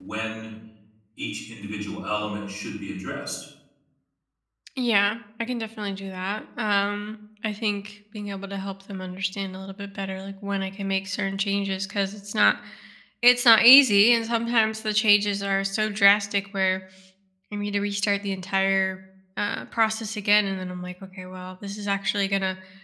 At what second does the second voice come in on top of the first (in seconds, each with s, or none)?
none